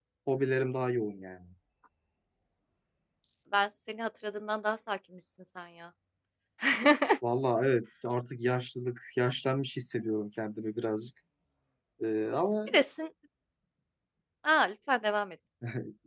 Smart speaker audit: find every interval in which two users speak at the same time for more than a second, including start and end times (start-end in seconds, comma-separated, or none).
none